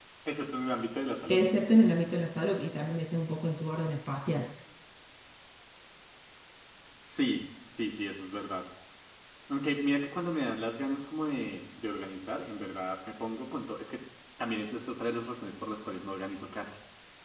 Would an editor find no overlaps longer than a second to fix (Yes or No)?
Yes